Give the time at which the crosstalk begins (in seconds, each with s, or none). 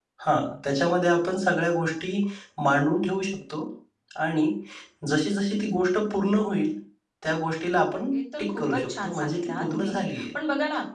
8.4 s